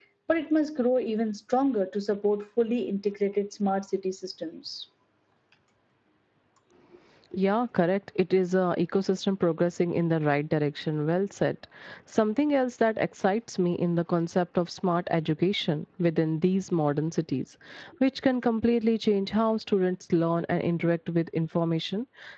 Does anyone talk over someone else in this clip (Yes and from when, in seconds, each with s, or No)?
No